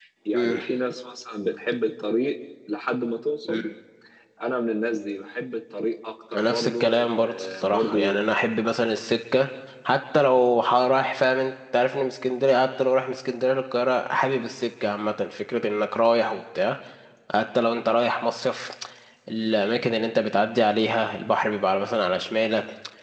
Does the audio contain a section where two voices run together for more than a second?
Yes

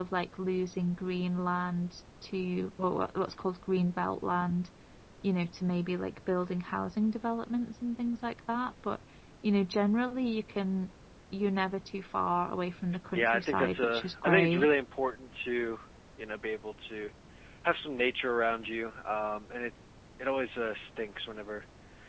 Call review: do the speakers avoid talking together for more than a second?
No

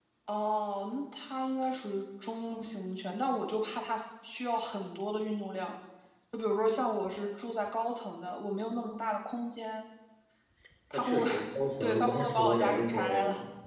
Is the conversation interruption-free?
No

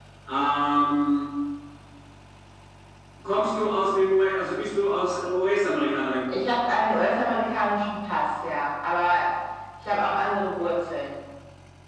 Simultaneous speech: No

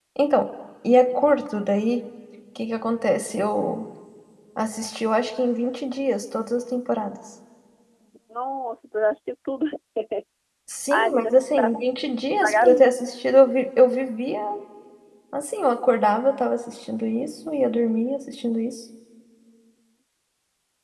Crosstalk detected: Yes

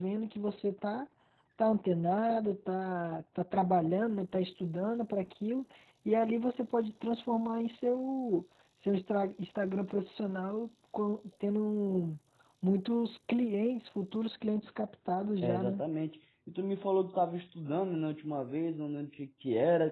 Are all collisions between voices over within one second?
Yes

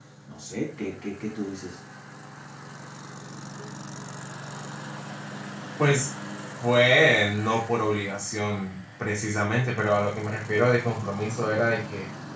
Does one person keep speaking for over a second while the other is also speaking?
No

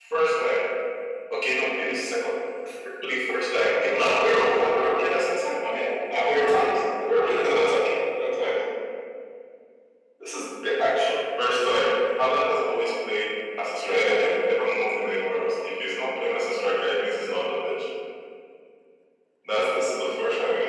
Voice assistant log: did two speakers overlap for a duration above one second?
No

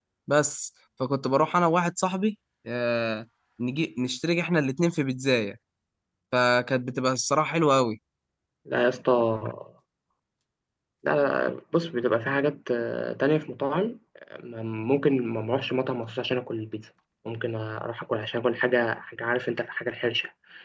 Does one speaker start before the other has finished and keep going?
No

